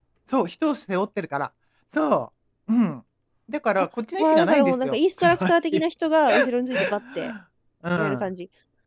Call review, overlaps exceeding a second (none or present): present